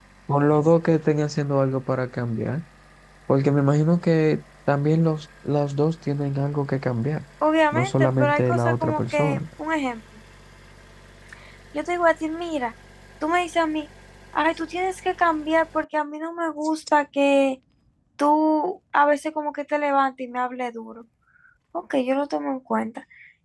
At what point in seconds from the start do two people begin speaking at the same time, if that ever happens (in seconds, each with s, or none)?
7.7 s